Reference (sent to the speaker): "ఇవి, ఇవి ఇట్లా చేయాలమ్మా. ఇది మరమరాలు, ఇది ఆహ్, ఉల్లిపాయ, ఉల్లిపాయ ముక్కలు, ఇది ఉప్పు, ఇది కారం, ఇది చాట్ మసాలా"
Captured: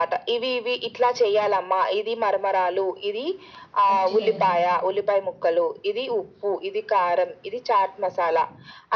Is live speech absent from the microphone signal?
No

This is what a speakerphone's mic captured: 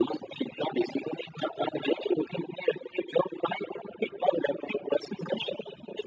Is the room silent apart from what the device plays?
Yes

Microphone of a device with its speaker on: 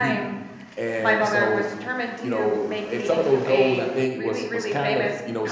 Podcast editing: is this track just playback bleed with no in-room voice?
Yes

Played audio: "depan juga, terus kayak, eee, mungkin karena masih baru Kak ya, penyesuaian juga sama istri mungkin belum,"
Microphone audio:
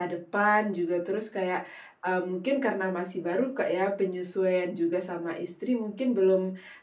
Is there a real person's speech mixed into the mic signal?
No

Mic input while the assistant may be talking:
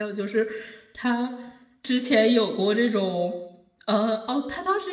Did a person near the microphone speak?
Yes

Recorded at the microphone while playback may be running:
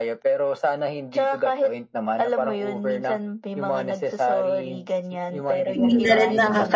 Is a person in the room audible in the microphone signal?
Yes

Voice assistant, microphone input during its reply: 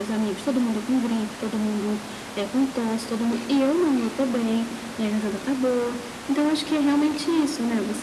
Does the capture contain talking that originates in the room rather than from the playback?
No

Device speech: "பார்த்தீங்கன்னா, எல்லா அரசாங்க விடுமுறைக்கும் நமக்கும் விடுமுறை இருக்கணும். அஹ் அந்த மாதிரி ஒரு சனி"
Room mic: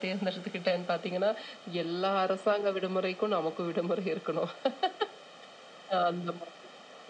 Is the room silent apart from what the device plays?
Yes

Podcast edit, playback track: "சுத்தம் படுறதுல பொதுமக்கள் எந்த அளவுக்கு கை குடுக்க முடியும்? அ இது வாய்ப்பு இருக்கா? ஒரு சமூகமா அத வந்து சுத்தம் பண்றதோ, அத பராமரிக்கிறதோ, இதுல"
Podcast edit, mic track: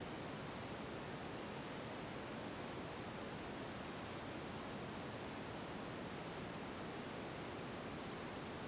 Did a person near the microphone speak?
No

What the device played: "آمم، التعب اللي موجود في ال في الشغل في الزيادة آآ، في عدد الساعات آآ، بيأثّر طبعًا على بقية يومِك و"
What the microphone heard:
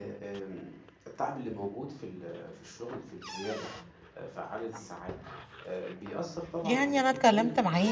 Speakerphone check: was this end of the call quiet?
No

